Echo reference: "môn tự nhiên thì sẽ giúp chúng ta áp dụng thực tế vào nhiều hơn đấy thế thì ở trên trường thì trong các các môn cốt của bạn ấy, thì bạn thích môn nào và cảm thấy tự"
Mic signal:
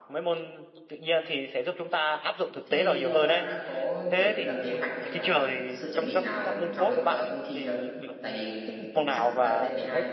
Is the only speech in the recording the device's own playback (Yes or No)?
No